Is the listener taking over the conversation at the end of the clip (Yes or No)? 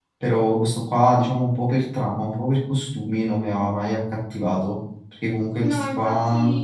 Yes